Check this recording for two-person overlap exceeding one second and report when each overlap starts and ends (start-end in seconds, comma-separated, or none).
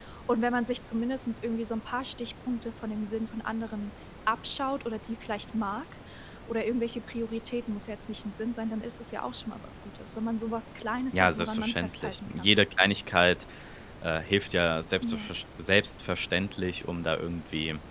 11.1-12.6